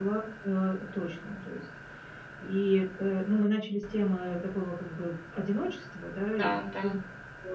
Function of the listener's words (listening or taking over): listening